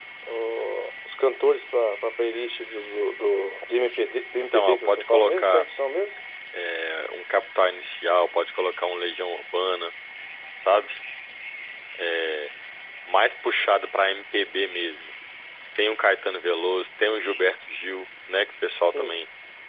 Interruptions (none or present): present